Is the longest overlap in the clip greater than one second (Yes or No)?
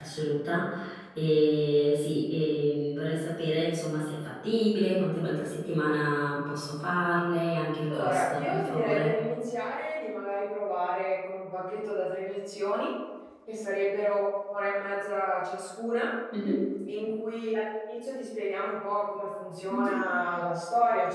Yes